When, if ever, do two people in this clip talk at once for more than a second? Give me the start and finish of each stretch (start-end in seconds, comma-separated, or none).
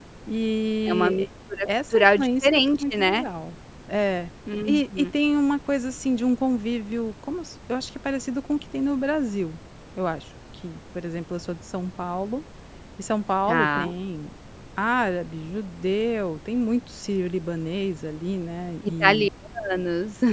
1.9-3.2